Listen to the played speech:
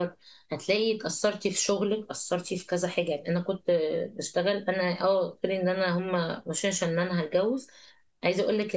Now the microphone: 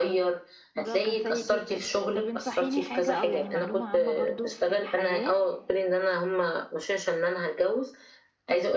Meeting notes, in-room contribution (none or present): present